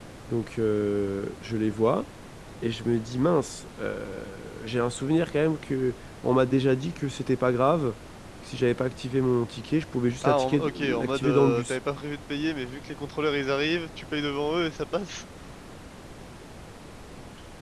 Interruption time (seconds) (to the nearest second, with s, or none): 10 s